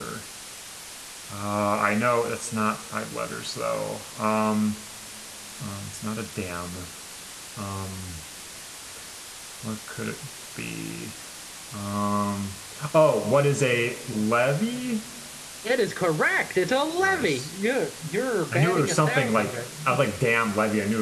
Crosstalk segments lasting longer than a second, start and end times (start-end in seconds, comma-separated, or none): 18.5-20.0